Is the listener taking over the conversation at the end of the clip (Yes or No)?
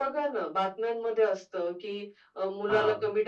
No